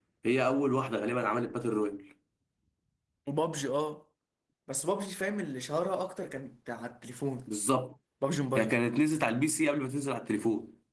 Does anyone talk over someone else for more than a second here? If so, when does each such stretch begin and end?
none

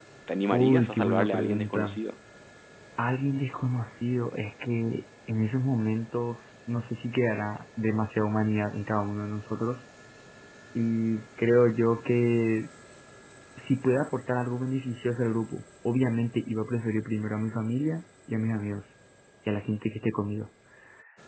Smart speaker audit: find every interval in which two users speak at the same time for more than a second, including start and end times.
0.5-2.0

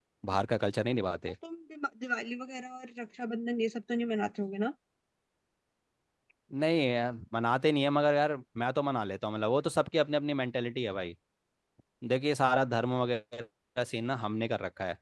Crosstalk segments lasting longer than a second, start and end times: none

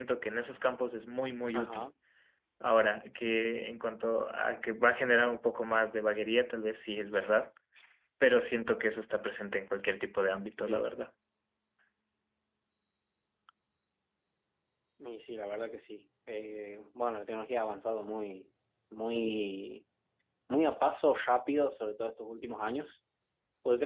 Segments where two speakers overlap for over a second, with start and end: none

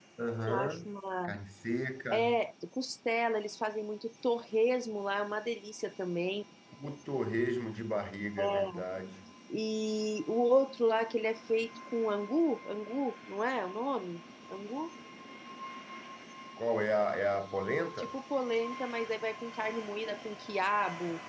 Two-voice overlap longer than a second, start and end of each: none

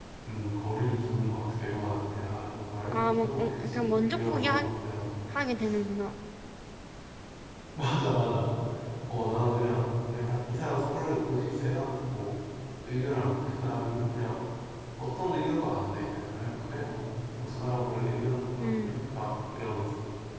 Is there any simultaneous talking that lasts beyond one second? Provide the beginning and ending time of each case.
2.9-4.6

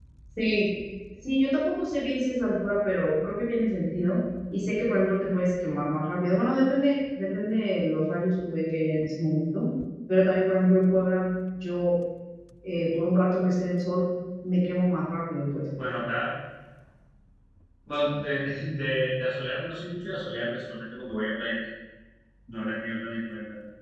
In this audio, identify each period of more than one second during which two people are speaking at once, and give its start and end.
none

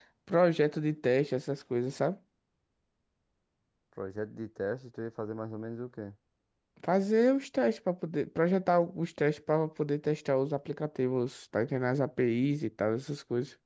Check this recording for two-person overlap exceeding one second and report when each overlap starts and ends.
none

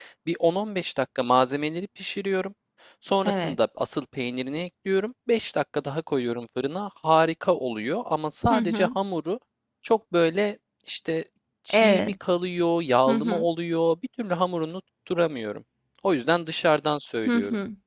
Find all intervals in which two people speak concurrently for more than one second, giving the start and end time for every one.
none

